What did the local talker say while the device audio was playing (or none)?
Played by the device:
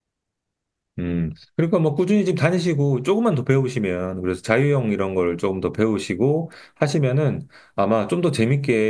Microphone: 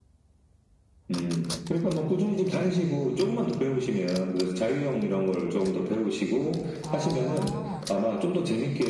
어,